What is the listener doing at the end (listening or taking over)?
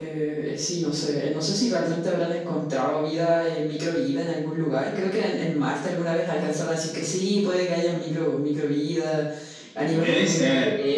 listening